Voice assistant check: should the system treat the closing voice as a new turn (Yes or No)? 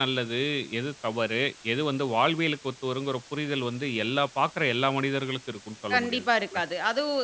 Yes